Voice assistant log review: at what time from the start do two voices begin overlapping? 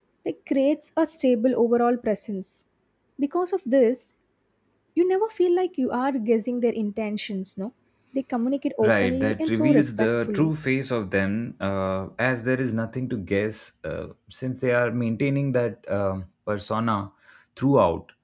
8.8 s

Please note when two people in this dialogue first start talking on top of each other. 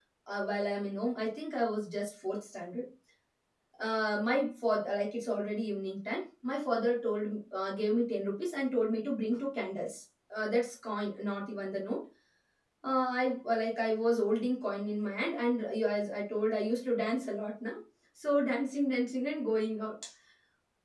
none

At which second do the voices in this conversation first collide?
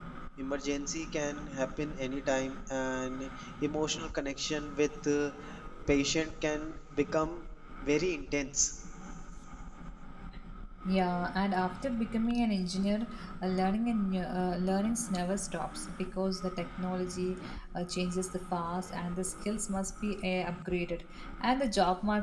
none

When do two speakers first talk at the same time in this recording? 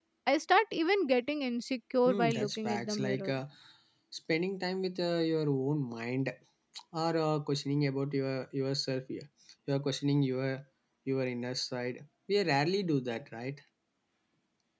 2.0 s

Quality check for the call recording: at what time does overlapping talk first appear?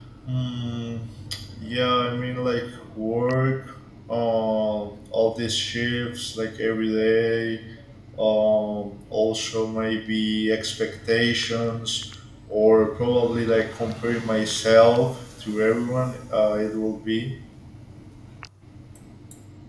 none

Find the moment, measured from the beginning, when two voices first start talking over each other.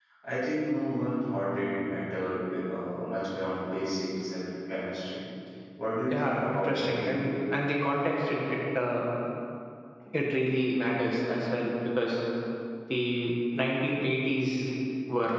6.1 s

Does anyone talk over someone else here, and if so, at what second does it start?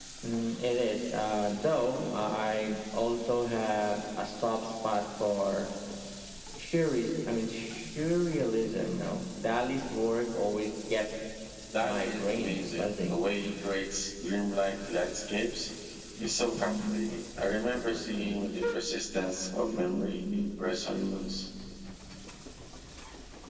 11.8 s

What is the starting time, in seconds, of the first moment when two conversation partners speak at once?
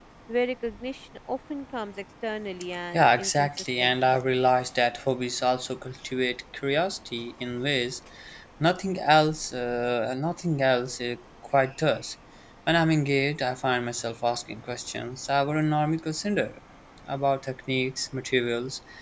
2.9 s

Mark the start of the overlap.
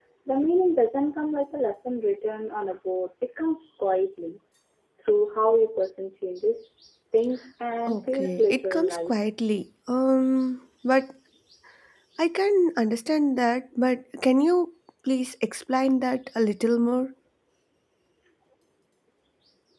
7.9 s

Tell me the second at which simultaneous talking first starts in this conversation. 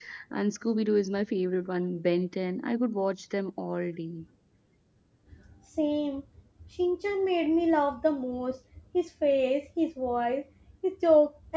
none

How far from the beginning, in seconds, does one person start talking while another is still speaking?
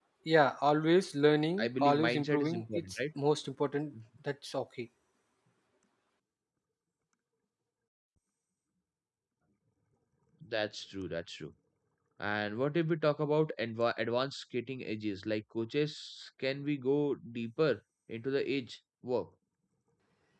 1.6 s

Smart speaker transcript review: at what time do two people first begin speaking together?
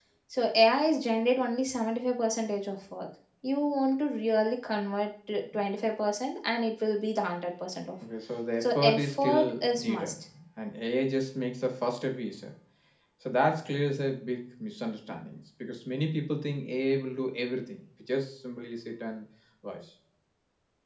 8.6 s

